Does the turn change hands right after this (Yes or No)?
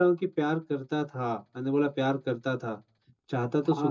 No